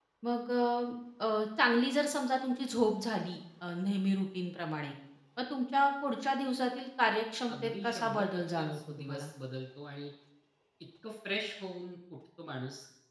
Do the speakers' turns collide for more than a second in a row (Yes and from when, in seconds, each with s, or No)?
Yes, from 7.5 s